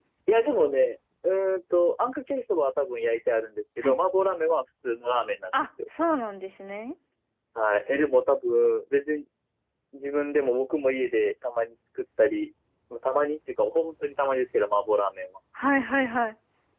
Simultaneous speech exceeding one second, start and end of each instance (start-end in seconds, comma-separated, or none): none